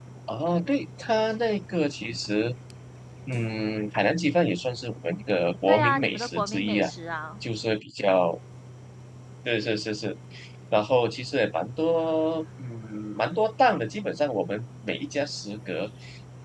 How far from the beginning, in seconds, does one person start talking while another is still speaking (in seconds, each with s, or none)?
5.7 s